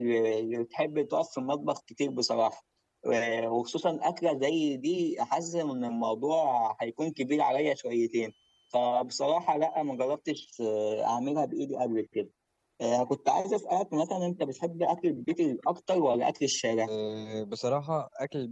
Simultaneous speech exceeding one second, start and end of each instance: none

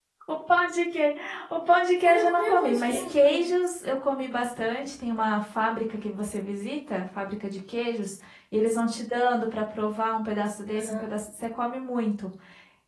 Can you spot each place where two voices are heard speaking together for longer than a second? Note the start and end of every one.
2.0-3.5

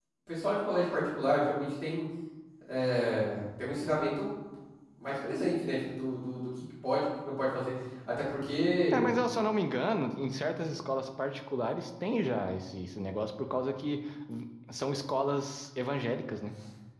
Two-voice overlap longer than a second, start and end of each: none

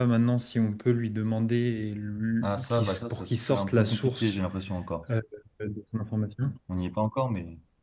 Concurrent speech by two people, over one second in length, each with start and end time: 2.4-4.4

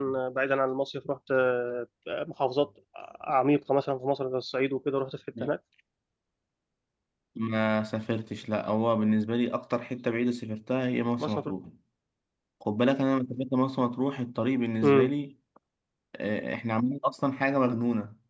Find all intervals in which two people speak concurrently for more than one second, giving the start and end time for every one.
none

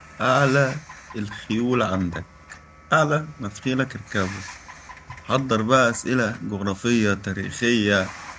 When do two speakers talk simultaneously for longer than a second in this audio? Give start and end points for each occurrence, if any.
none

